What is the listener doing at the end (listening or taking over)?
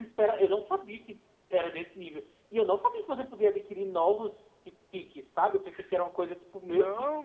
taking over